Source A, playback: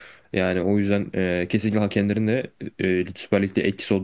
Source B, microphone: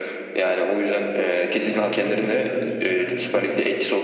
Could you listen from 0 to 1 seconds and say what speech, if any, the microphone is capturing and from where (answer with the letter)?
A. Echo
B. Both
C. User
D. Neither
A